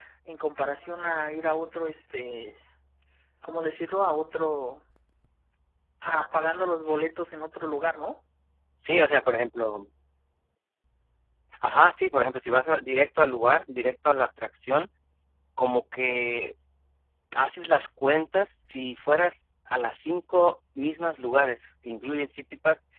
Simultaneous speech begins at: none

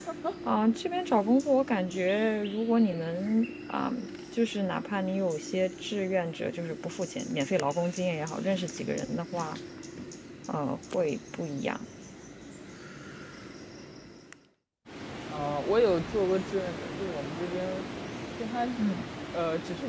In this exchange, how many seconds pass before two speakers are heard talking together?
none

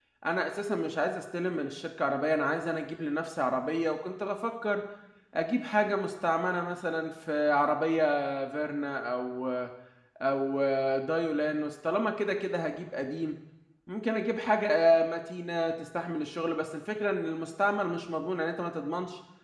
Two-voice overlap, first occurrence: none

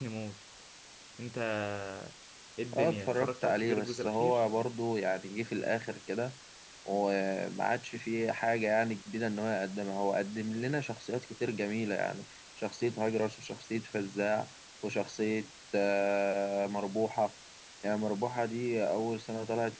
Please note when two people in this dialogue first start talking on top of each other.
2.8 s

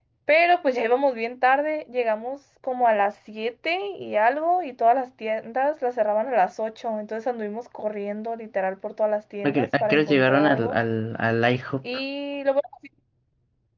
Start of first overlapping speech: 9.4 s

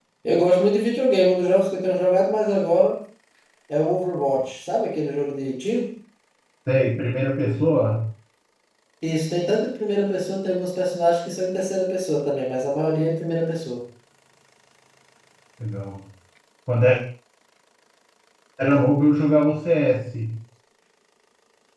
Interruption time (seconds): none

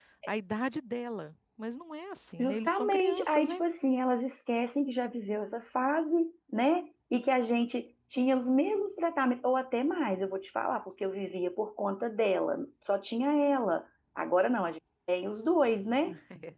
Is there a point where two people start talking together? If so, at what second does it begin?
2.4 s

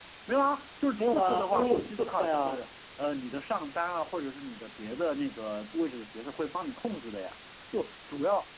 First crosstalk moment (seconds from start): 1.0 s

